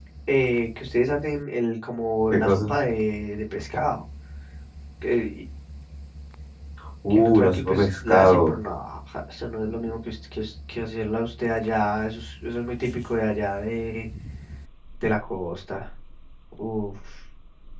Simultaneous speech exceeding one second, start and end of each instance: 7.1-8.5

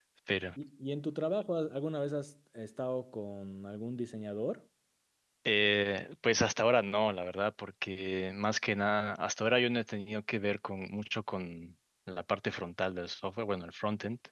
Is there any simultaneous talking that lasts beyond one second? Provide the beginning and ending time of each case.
none

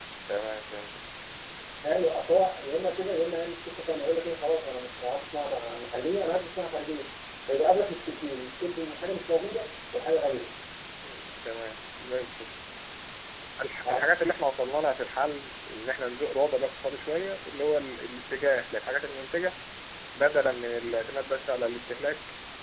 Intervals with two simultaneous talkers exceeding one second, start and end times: none

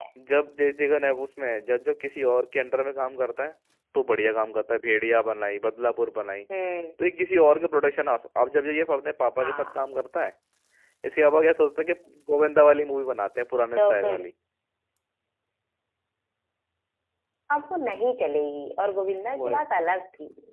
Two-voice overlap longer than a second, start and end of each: none

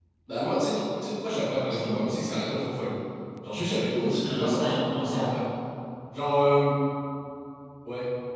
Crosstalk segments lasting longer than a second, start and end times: 4.0-5.3

